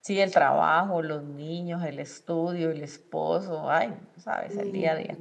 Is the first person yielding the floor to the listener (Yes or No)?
Yes